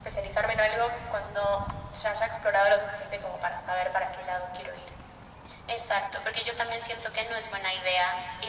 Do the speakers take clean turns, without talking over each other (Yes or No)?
Yes